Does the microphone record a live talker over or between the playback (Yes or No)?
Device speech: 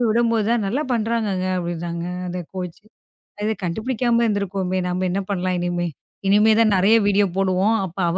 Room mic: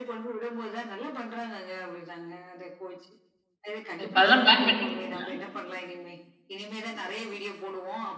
Yes